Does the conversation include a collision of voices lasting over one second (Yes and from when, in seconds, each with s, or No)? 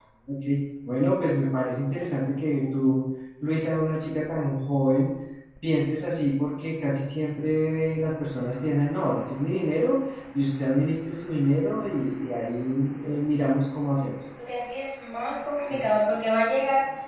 No